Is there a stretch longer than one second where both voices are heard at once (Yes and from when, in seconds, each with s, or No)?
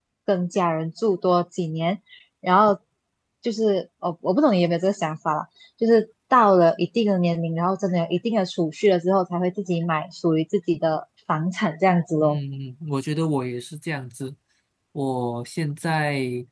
No